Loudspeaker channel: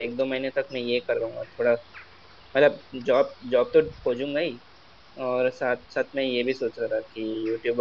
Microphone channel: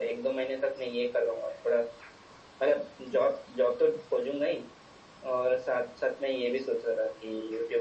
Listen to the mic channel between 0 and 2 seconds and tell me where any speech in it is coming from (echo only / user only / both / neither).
echo only